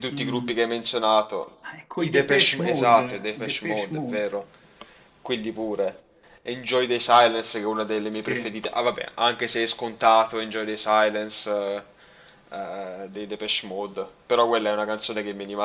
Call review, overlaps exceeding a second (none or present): present